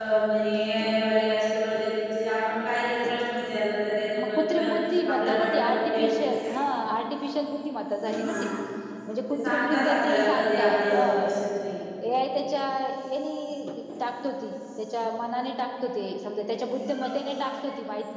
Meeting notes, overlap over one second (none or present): present